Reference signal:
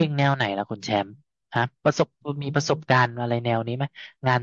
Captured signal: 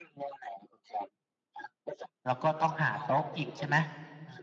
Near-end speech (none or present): present